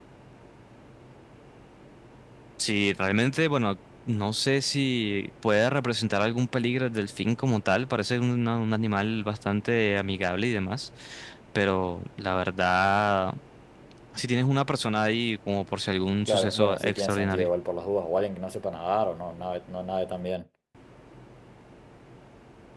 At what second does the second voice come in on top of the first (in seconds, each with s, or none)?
16.3 s